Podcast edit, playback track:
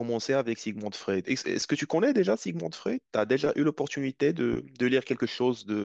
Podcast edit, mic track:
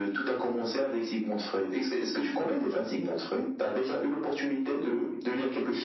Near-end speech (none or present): none